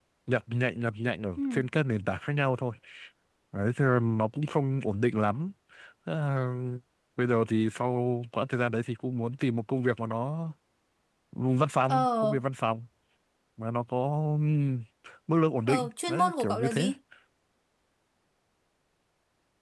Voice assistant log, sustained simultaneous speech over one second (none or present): present